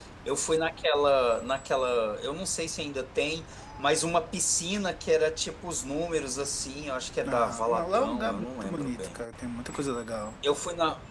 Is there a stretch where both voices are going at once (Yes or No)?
Yes